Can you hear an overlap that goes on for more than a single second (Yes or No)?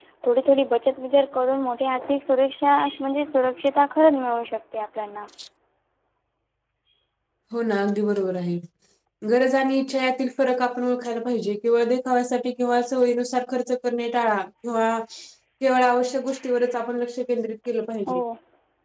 No